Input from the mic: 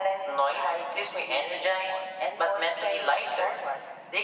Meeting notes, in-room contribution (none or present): none